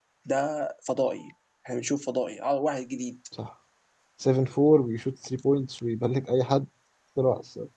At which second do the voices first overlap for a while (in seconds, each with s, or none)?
none